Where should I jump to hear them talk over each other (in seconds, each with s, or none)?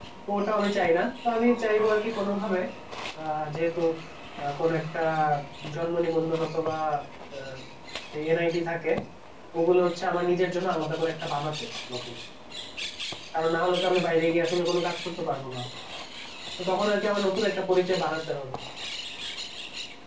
none